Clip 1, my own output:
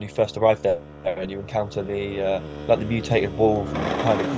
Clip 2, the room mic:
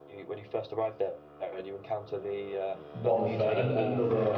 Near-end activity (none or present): present